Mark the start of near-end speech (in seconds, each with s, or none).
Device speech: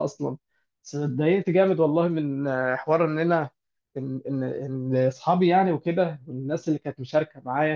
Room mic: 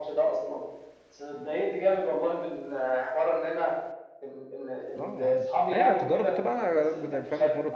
5.0 s